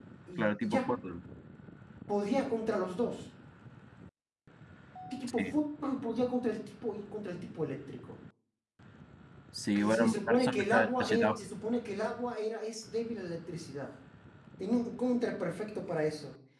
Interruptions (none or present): present